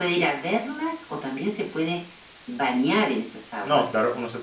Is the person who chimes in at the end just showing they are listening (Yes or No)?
No